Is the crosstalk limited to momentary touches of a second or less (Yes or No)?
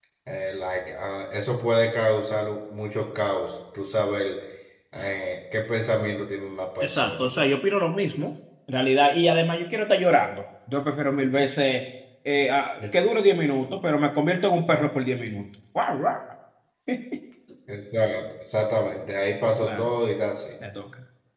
Yes